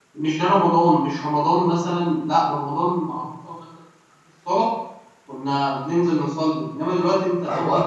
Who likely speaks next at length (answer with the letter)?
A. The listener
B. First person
A